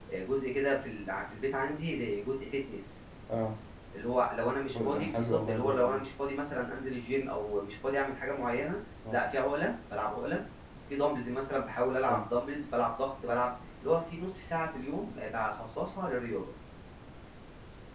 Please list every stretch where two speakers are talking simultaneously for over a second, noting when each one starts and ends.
4.7-6.0

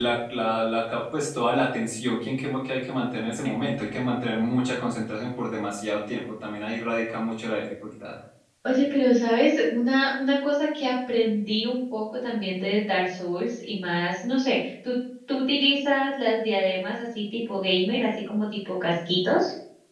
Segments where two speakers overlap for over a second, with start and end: none

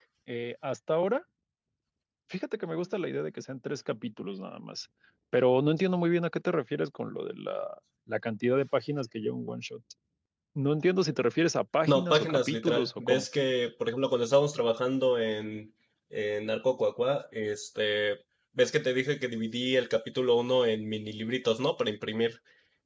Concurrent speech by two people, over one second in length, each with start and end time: 11.9-13.2

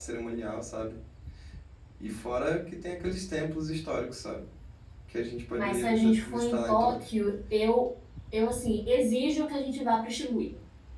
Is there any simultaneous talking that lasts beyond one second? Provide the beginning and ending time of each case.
5.5-7.0

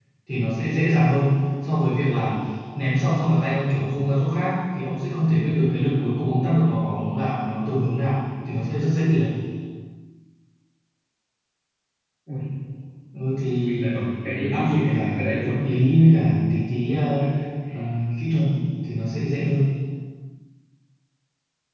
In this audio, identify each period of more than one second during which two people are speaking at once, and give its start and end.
14.3-15.7

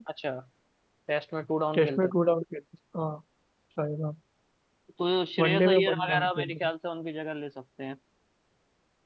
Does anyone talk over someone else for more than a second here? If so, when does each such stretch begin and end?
5.4-6.7

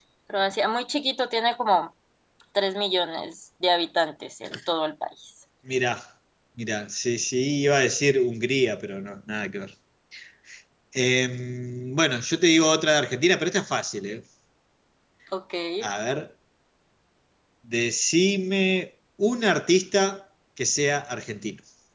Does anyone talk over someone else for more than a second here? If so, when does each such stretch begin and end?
none

